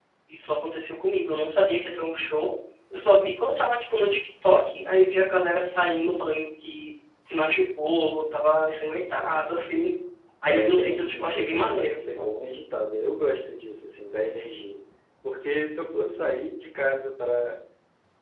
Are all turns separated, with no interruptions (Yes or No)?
No